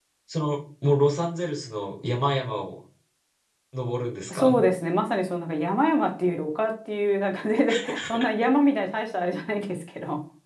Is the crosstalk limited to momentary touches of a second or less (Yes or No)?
Yes